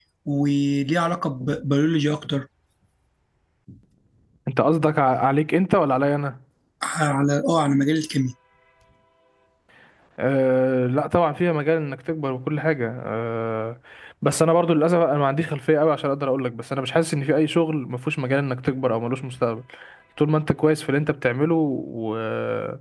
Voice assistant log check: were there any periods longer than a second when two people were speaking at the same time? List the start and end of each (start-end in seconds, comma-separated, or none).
none